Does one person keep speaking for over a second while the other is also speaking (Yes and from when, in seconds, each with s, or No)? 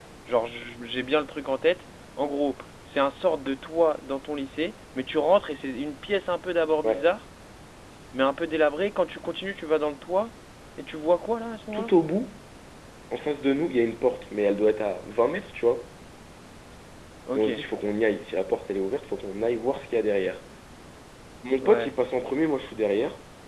No